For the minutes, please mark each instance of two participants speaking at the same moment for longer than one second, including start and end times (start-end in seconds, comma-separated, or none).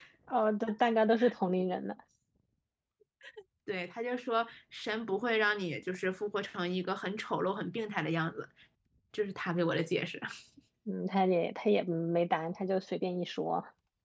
none